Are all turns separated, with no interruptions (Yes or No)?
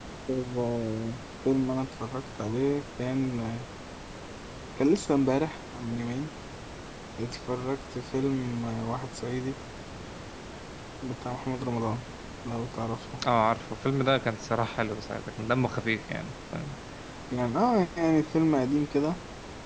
Yes